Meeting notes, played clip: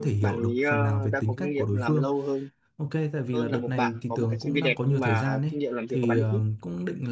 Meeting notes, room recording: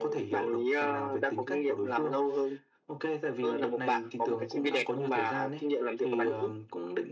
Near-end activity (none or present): none